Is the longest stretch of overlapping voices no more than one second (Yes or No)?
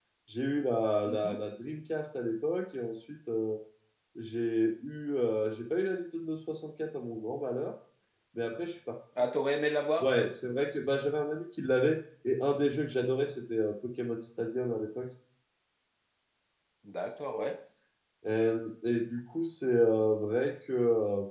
Yes